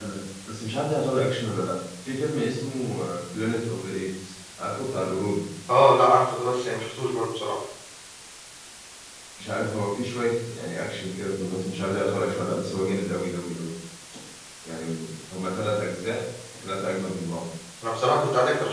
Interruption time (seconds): none

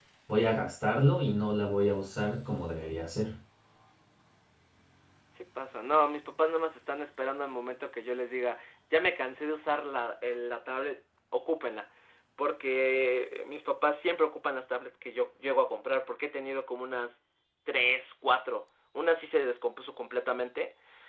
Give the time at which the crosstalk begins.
none

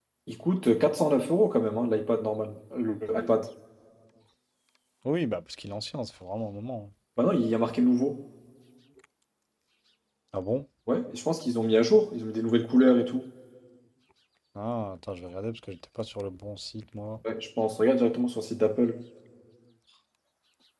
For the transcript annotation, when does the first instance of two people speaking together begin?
none

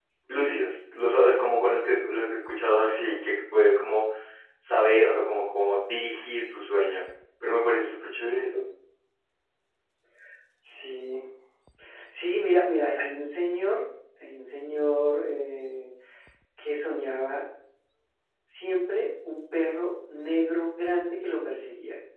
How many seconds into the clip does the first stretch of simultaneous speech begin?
none

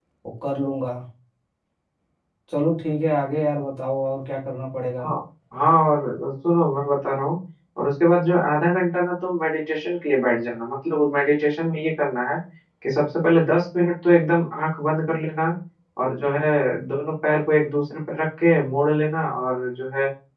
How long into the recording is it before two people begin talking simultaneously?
none

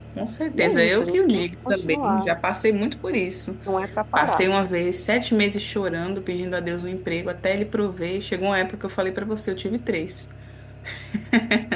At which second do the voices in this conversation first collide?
0.5 s

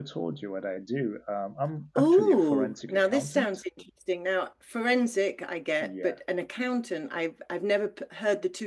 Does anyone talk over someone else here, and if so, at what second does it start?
1.9 s

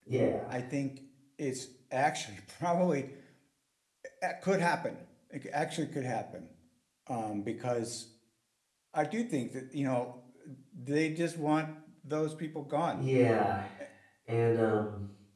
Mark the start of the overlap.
none

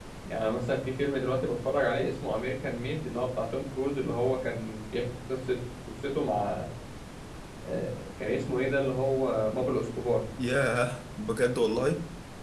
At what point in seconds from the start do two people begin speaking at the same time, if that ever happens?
none

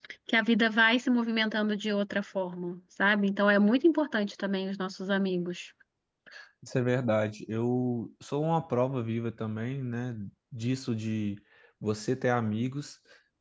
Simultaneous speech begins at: none

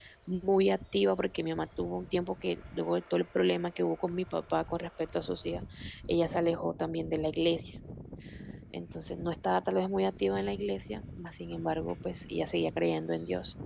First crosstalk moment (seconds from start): none

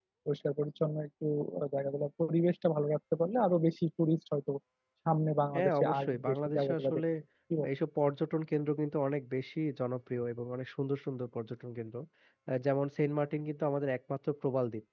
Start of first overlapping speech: 5.5 s

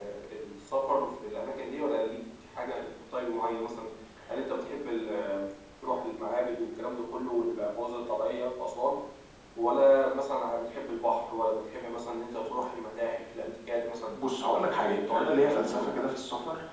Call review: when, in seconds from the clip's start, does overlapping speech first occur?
14.6 s

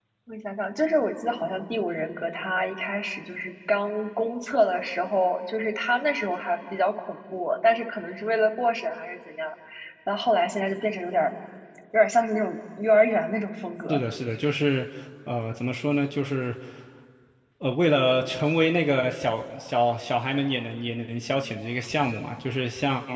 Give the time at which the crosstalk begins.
none

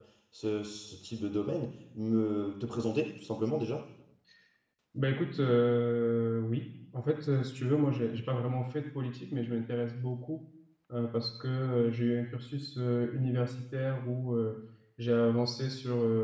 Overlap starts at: none

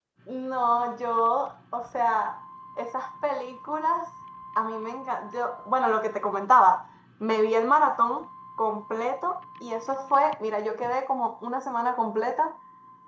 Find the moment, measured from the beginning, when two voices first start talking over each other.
none

